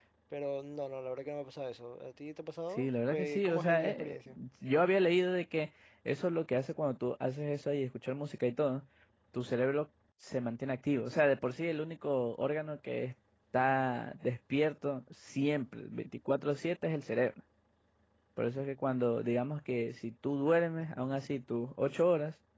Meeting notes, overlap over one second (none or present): present